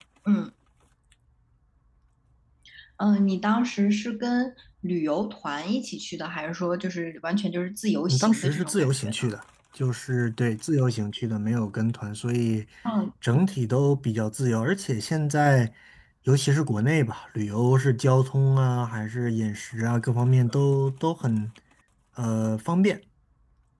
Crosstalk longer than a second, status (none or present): present